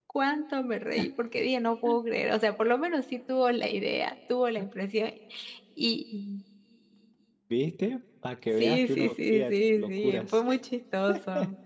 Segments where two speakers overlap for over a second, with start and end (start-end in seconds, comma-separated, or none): 8.6-10.4